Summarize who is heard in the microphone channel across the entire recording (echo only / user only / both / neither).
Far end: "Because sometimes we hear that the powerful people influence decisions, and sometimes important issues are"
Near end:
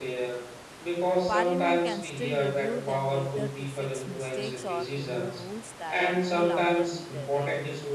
both